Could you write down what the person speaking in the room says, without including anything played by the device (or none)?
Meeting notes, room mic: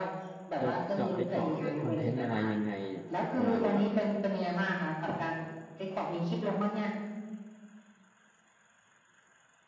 จะเจาะไปเจาะเรื่องคอนเทนต์อะไรยังไงเนี่ยเดี๋ยวกำลังแบบ